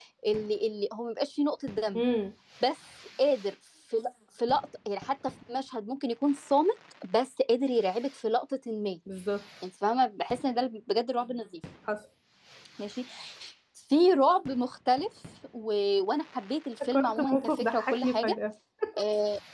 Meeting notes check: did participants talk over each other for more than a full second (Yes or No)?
Yes